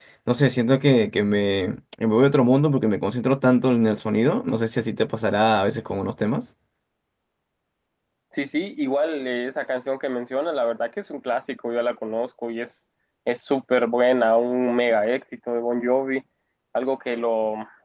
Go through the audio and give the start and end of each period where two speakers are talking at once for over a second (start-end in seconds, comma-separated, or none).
none